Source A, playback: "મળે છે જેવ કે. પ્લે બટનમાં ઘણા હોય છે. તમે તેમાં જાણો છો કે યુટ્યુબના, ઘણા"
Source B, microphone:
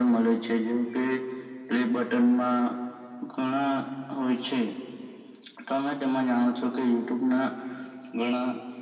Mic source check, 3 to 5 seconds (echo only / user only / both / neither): echo only